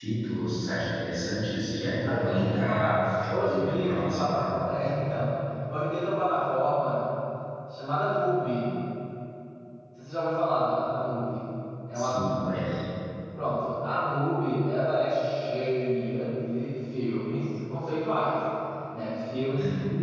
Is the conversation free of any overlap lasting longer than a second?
No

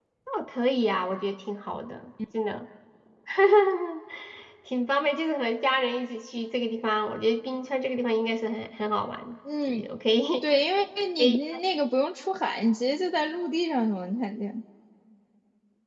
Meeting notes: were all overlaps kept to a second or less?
Yes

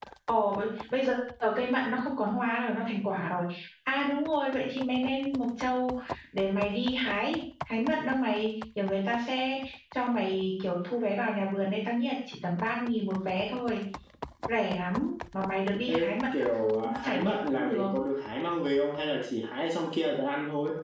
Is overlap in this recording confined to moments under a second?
No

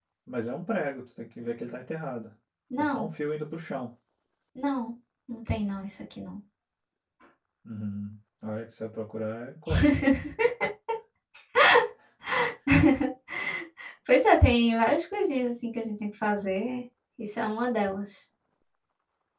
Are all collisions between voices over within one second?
Yes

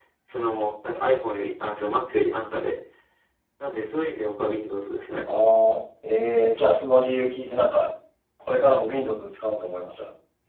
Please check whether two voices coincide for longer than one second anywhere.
No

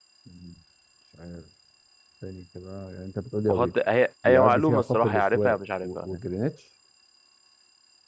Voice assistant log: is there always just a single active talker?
No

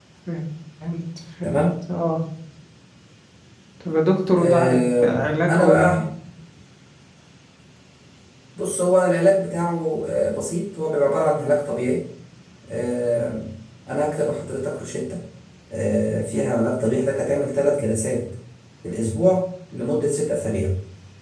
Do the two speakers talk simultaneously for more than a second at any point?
Yes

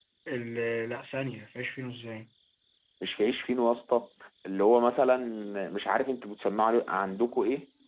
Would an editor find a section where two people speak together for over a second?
No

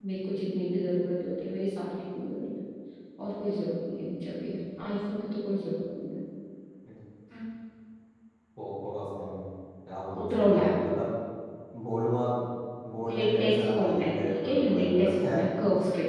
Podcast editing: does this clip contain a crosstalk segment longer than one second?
Yes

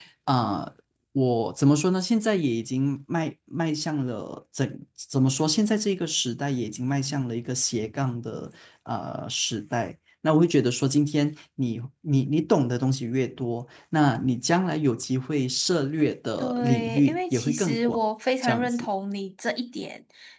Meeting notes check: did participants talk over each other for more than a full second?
Yes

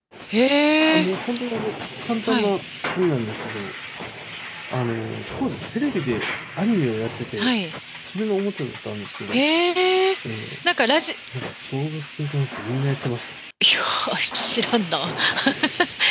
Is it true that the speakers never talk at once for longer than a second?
Yes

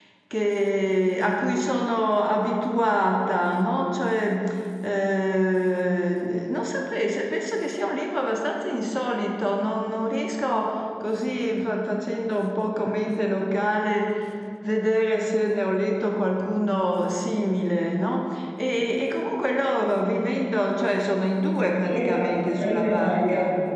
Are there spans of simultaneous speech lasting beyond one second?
Yes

